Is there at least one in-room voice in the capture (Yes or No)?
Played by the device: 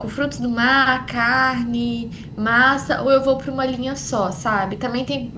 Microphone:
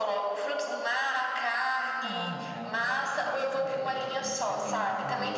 Yes